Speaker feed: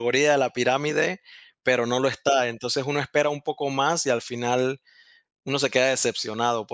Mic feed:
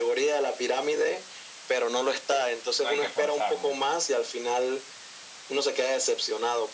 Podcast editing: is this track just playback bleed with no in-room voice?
No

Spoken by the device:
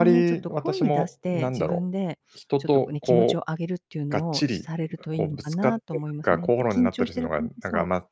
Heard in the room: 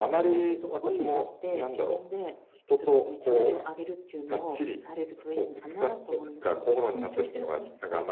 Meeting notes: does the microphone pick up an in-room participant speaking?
No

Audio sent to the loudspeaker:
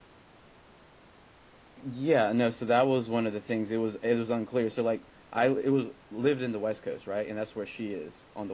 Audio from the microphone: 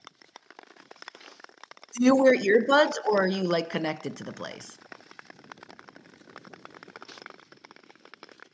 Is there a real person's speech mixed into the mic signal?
Yes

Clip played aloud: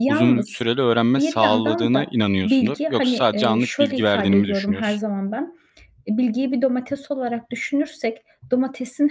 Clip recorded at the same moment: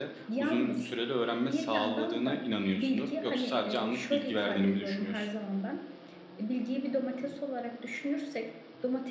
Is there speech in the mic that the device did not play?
No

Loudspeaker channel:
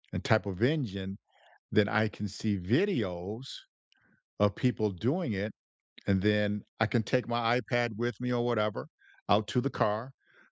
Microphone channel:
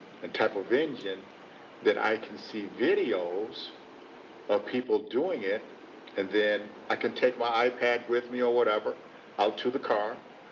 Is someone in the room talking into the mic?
No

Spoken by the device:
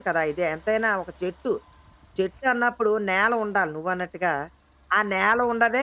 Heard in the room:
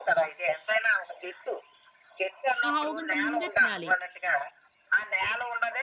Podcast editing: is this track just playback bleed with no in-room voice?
No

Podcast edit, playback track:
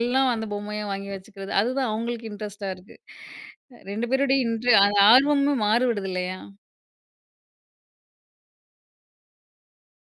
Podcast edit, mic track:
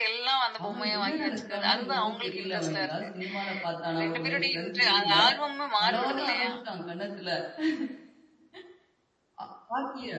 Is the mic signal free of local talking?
No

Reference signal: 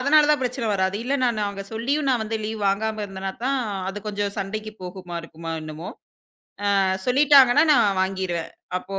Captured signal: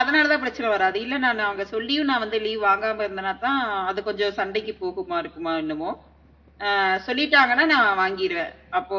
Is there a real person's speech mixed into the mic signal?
No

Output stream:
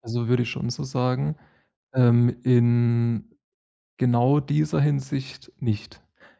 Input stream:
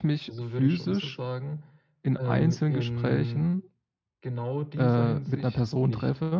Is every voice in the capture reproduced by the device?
No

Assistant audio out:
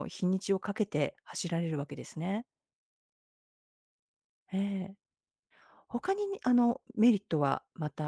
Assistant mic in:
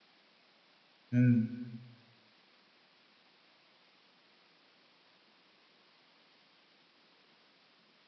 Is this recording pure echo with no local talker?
No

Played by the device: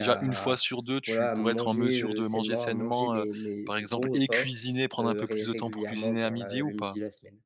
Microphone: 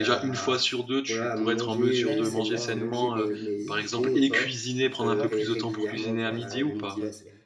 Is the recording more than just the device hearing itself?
Yes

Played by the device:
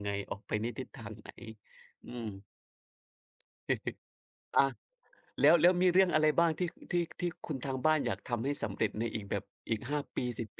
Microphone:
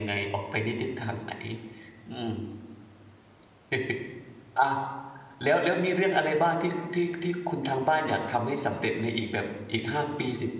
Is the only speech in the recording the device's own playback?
Yes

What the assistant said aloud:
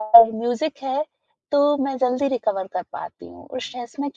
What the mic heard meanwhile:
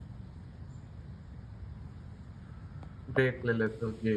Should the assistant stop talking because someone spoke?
Yes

